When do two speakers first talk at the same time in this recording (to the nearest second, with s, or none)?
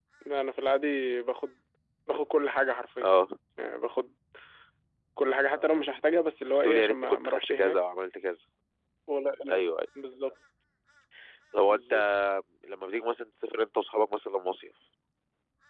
6 s